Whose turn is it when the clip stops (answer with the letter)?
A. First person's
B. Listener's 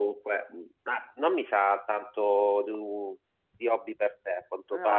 A